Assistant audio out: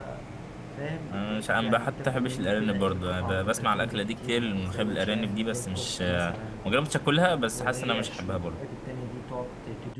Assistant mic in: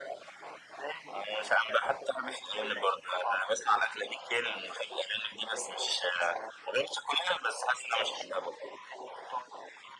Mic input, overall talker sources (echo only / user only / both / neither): echo only